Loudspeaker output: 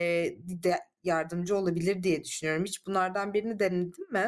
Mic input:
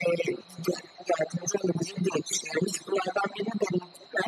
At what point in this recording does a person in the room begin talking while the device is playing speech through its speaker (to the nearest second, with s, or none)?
none